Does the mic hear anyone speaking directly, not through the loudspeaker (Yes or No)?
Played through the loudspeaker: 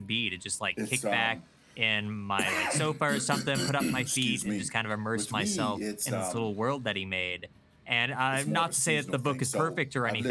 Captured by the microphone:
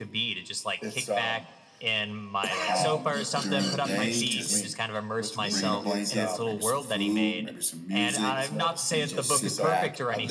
Yes